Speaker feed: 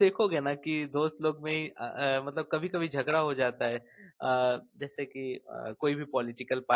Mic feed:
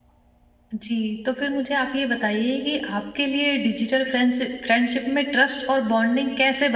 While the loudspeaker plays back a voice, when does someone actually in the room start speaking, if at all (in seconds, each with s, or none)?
0.7 s